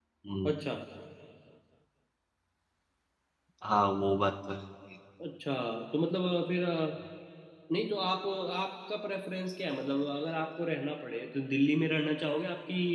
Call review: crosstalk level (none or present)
none